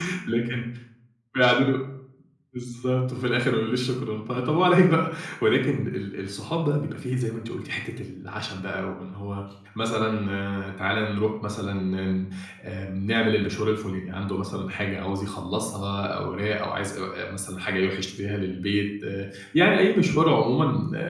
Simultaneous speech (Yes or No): No